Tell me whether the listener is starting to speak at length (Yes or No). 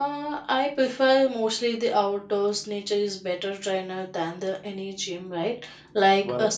No